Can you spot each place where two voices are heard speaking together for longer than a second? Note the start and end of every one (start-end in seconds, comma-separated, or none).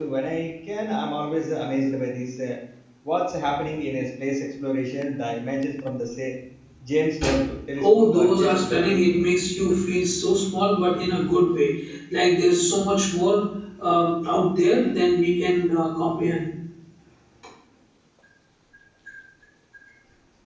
7.8-9.3